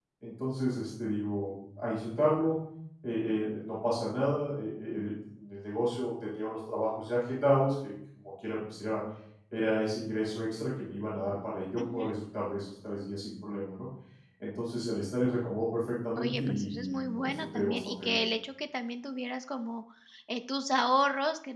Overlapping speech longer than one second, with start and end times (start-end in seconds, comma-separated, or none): 16.2-18.2